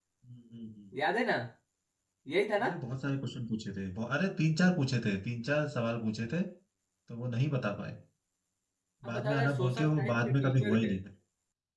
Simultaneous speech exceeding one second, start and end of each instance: 9.1-11.0

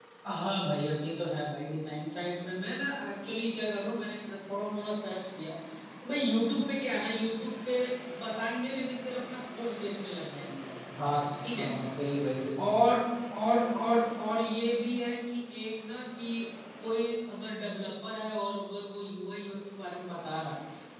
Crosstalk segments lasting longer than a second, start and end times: none

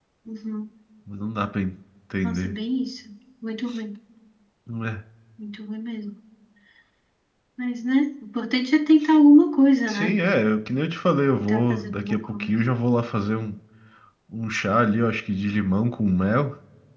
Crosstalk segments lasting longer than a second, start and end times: 11.3-12.5

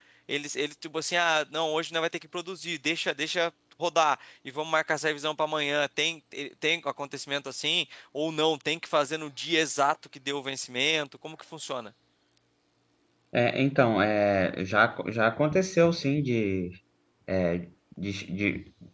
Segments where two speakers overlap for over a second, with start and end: none

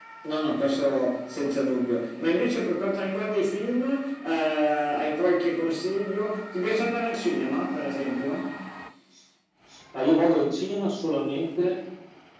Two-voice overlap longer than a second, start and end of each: none

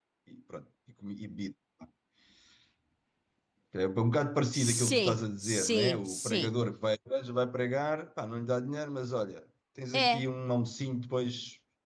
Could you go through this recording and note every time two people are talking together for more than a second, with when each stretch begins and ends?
4.5-6.5

